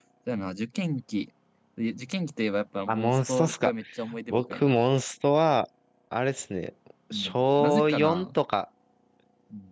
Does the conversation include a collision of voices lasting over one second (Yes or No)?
Yes